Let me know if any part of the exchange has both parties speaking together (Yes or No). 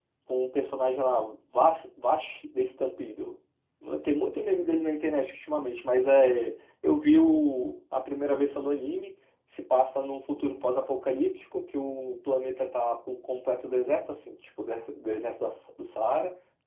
No